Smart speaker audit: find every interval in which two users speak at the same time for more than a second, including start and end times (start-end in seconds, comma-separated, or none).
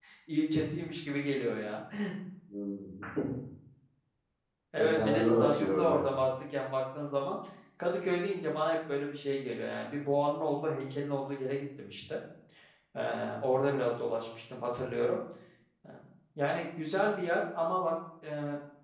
4.8-6.0